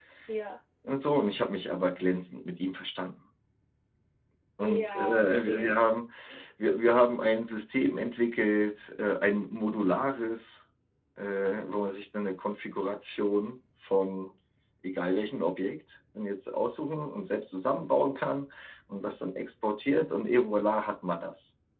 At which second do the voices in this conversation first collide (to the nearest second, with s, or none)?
5 s